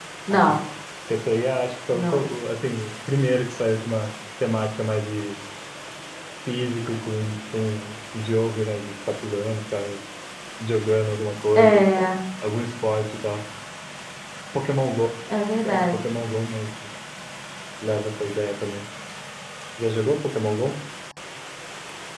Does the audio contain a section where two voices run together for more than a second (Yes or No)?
No